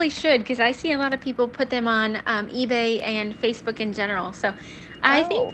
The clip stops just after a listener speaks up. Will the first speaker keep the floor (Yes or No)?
Yes